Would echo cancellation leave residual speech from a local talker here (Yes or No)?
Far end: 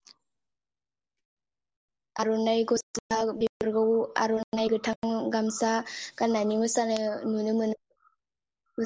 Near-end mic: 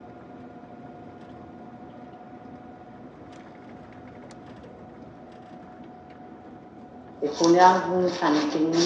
Yes